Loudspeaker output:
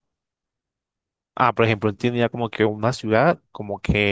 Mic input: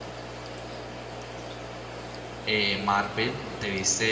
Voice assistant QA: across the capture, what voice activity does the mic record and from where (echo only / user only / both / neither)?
user only